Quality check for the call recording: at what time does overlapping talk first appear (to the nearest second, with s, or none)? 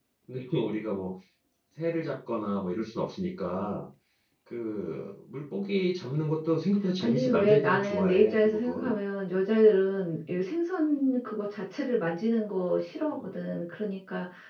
7 s